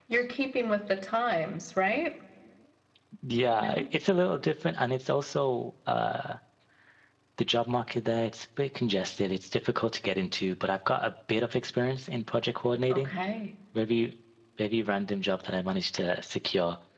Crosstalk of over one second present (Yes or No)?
No